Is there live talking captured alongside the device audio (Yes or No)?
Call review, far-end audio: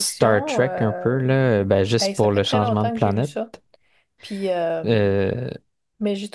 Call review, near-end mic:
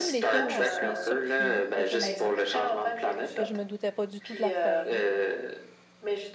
Yes